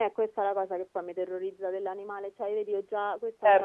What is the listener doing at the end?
listening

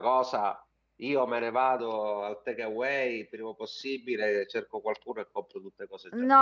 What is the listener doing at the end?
taking over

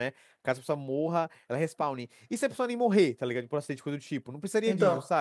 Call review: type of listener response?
listening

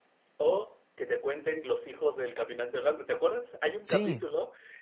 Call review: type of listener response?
listening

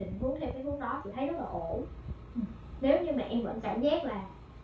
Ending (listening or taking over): listening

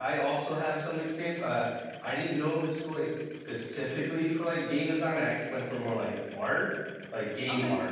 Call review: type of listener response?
listening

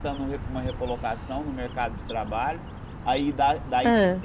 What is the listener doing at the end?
listening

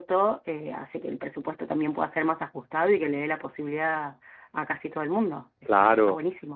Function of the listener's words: taking over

